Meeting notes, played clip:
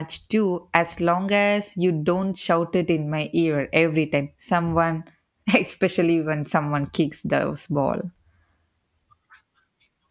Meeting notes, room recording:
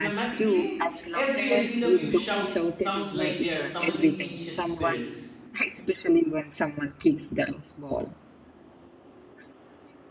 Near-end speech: present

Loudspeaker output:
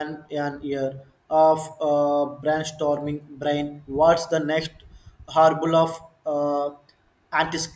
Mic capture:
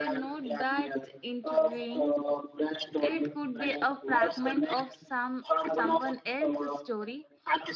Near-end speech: present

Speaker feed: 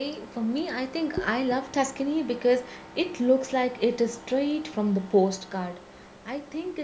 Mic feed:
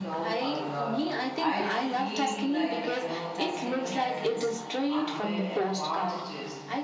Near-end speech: present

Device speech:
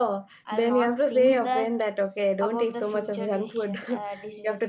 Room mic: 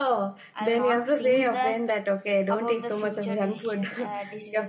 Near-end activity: none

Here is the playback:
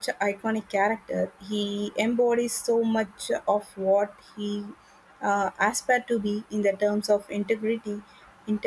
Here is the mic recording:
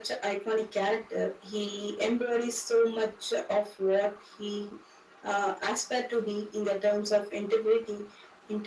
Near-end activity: none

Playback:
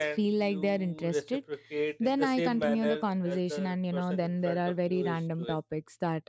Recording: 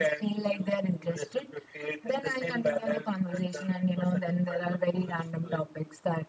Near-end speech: none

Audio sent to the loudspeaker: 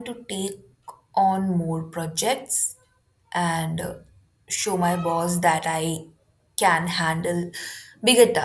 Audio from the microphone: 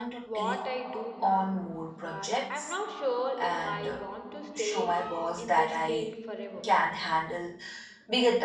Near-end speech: present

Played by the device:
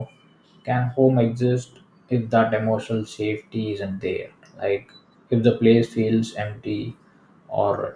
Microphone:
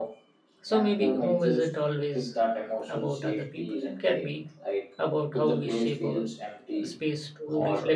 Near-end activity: present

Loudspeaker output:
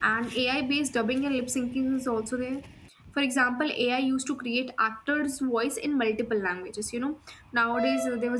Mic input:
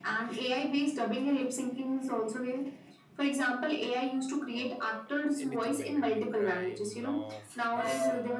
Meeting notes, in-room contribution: present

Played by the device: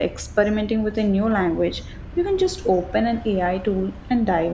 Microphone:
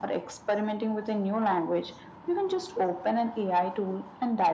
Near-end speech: none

